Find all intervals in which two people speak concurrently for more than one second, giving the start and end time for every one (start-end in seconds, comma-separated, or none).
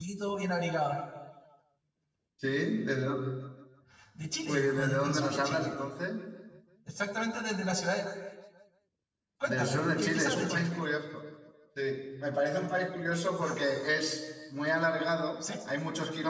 4.4-5.7, 9.4-10.7